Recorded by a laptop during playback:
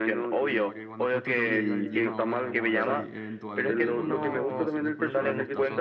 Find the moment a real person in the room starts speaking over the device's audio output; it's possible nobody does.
0.4 s

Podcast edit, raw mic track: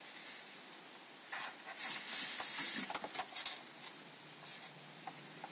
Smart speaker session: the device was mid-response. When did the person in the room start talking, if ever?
none

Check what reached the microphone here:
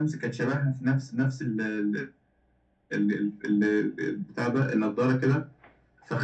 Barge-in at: none

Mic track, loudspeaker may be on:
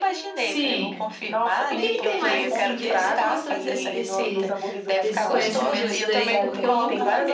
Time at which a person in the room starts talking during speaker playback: 0.3 s

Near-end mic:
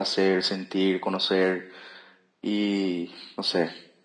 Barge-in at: none

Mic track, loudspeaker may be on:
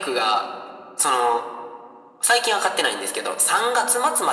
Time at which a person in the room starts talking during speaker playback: none

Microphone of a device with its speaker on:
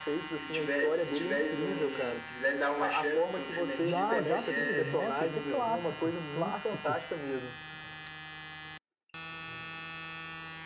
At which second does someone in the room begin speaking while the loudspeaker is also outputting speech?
3.8 s

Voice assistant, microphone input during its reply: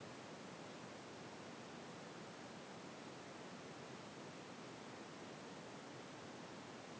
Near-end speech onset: none

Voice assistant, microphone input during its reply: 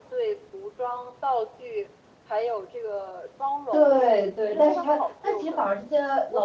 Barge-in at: 3.7 s

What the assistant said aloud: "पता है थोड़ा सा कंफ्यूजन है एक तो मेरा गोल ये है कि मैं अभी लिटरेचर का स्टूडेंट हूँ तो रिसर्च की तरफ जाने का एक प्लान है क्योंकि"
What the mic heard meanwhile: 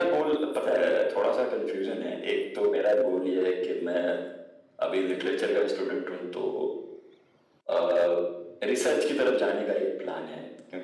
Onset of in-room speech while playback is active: none

